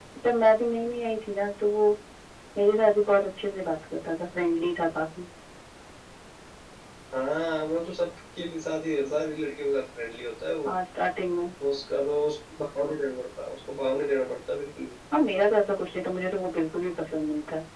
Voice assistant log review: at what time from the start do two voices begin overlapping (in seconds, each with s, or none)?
none